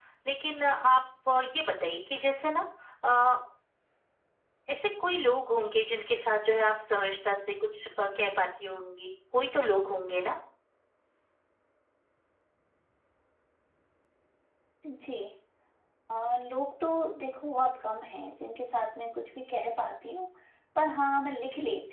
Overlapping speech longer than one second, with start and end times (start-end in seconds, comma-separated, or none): none